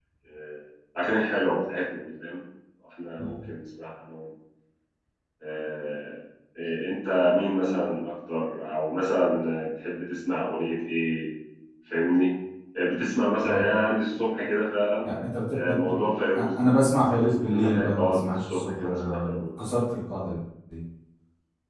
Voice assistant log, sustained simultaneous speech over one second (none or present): present